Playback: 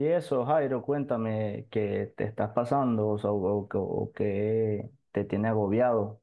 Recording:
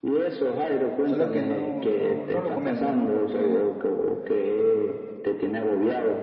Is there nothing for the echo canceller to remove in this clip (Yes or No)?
No